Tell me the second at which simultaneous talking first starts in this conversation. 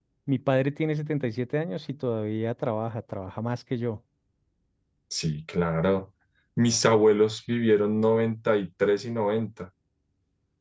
none

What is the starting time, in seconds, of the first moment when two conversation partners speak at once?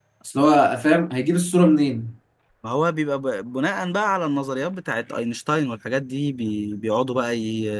none

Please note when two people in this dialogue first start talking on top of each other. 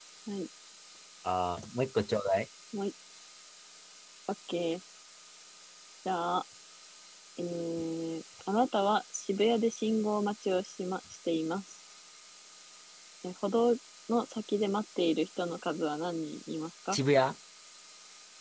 none

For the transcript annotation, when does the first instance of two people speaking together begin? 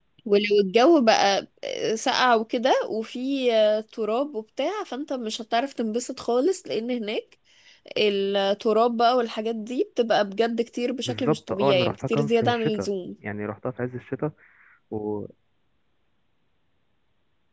11 s

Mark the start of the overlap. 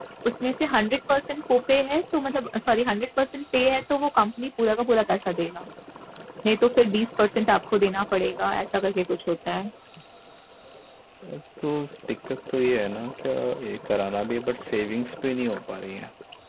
none

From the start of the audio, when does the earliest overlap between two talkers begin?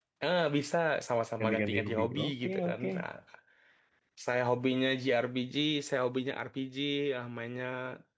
1 s

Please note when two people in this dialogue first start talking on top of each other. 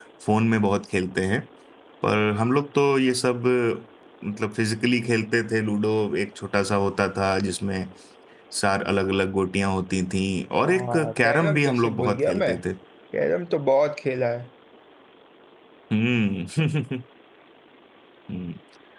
11 s

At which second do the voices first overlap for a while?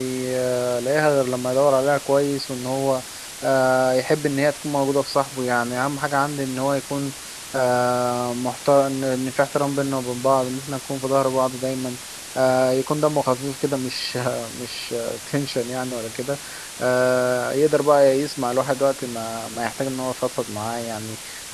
none

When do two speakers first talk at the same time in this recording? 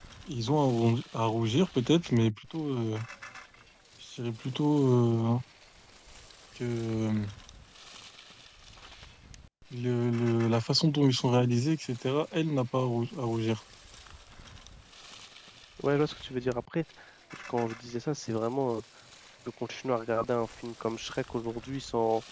none

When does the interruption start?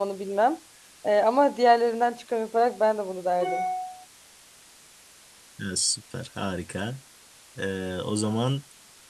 none

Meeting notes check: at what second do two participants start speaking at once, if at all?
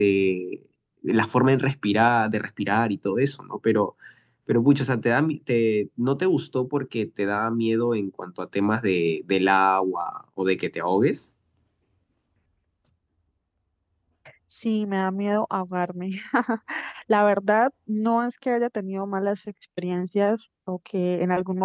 none

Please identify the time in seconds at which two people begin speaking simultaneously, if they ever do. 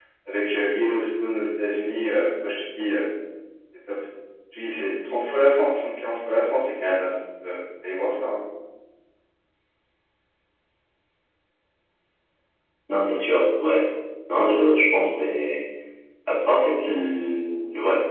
none

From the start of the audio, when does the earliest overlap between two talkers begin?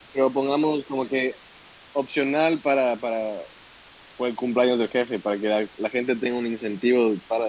none

